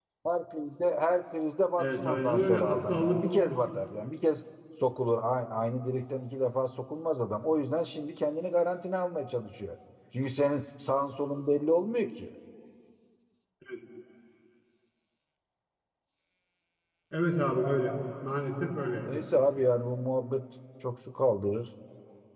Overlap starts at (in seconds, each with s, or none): 1.8 s